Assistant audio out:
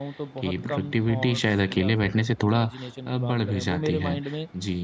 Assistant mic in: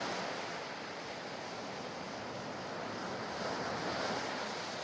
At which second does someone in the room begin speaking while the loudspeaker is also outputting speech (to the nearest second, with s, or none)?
none